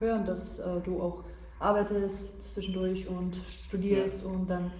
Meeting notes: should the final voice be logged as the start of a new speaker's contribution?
No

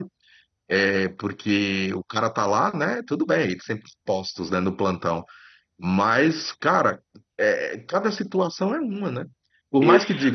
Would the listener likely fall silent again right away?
Yes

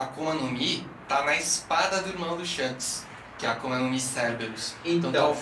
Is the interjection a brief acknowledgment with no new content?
Yes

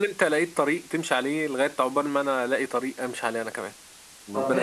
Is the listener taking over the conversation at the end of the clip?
Yes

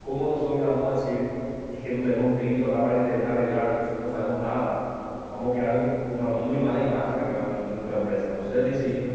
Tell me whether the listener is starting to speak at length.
No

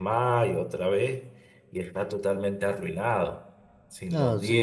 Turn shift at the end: Yes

